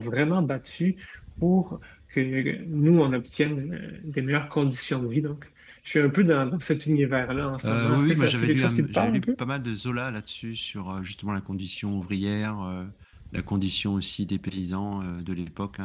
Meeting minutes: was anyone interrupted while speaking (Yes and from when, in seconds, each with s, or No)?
Yes, from 7.6 s